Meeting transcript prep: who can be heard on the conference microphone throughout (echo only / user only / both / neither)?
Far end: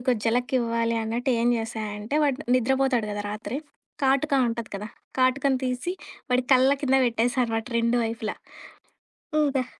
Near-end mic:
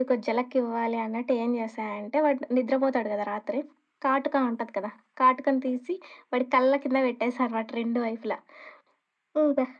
echo only